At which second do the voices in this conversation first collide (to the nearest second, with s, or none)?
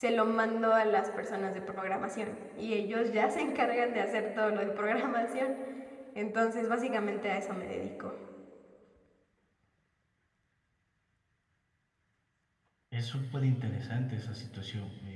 none